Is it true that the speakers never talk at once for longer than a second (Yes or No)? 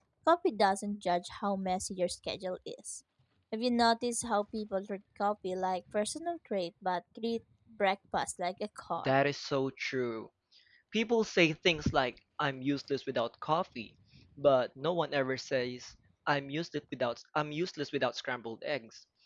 Yes